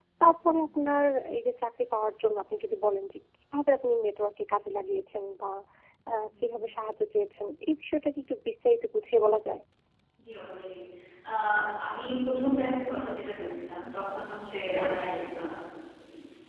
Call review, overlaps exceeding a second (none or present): none